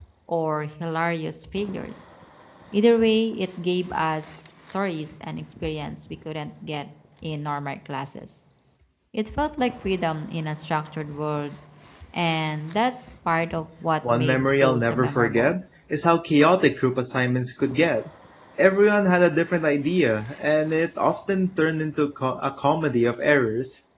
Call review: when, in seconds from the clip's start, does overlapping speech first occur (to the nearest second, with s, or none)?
14 s